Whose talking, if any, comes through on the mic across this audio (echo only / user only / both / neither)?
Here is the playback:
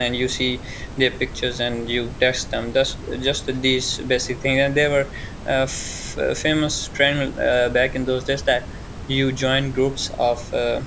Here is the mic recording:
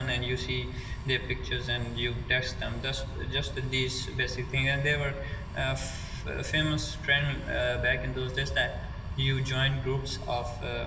echo only